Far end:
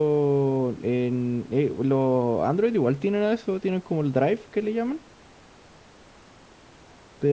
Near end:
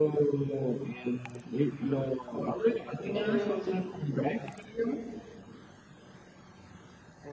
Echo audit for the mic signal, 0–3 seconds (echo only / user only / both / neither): echo only